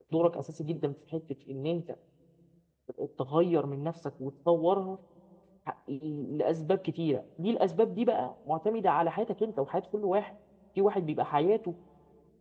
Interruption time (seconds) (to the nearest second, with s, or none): none